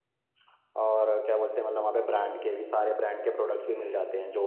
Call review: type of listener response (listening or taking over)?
taking over